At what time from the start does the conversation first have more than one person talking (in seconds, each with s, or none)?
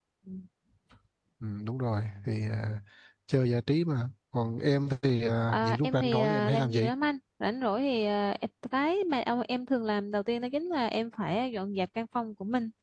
5.5 s